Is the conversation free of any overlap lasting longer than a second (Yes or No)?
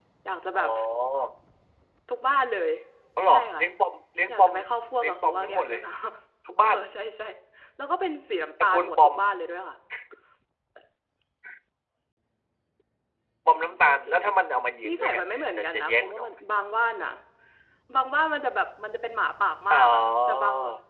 No